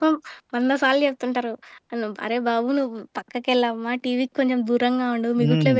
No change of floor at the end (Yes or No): No